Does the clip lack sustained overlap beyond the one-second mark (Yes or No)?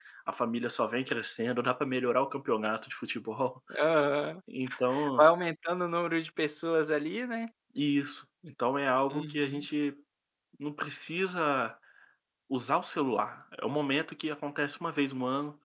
Yes